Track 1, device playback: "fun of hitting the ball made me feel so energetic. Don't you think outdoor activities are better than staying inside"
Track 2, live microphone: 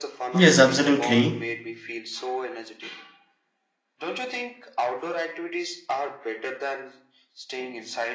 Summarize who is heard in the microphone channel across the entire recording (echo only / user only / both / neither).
both